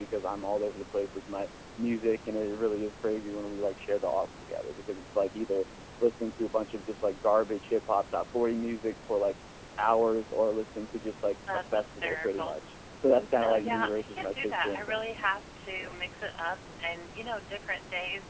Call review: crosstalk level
present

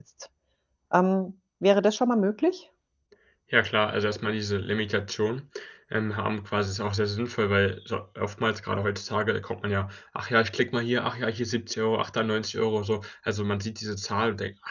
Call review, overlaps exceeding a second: none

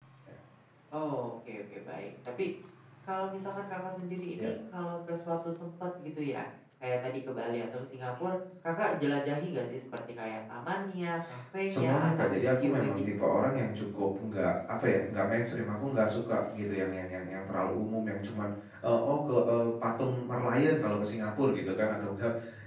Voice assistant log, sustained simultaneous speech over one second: present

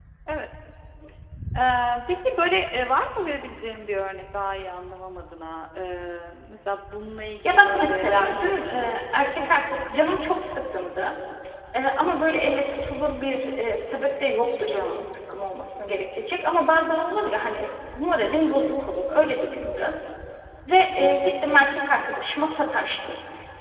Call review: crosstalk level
present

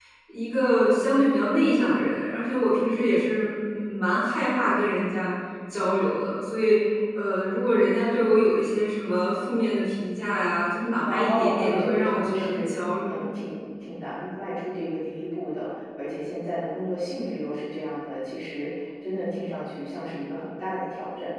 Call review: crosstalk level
present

